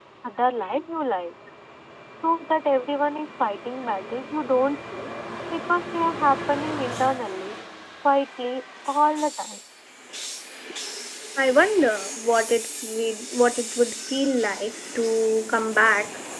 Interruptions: none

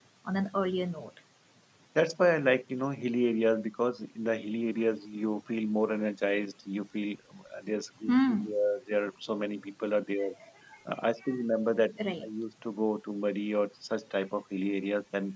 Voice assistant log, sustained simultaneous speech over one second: none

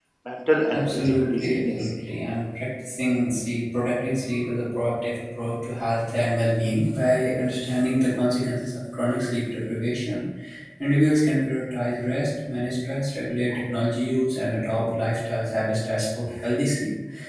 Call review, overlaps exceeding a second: present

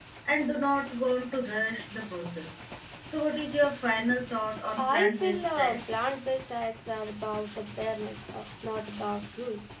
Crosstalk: present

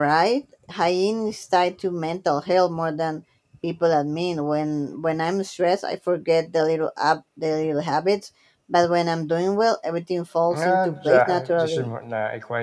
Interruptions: present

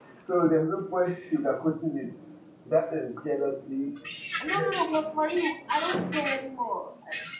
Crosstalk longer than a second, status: none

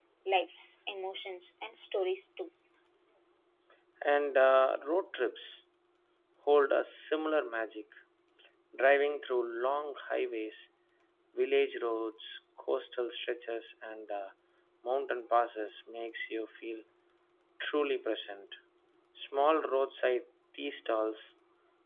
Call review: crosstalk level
none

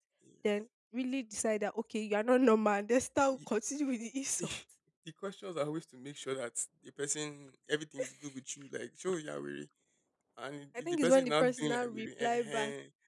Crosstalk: present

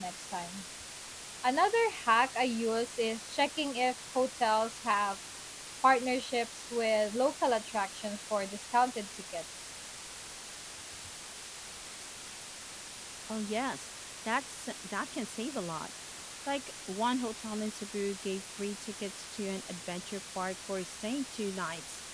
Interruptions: none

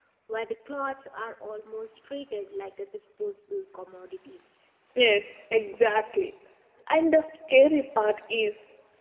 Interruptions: none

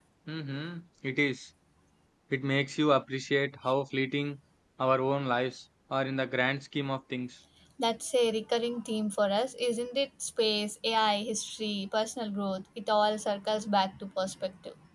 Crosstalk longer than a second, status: none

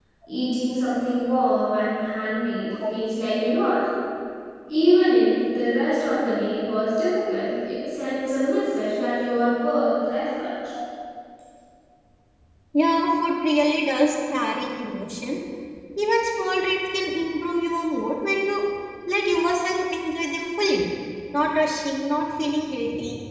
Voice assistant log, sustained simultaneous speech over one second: none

